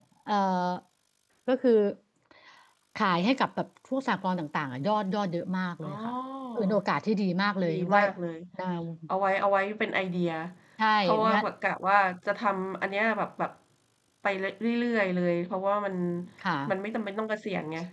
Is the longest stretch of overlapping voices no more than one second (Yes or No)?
Yes